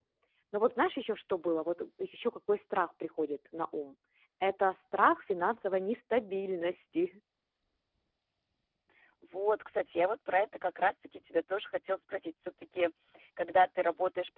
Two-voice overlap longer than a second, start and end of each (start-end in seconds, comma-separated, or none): none